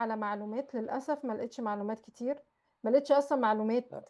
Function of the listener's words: listening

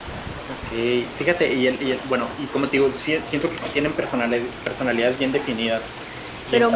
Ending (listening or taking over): taking over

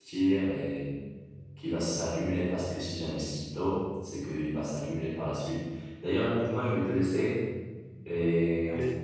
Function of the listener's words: taking over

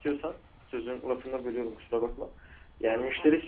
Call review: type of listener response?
listening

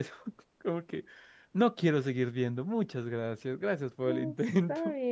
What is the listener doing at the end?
taking over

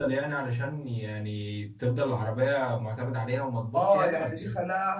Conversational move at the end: taking over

